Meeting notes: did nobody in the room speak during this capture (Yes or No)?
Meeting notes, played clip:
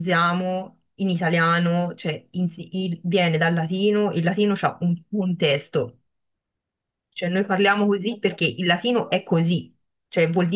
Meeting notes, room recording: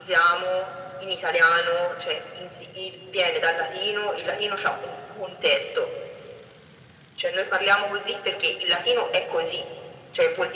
Yes